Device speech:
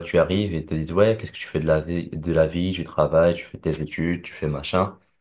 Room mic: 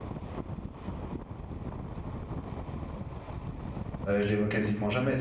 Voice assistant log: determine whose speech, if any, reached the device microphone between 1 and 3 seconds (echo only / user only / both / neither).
neither